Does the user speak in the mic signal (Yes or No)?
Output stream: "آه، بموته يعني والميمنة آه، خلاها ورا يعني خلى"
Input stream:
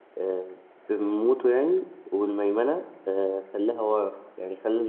No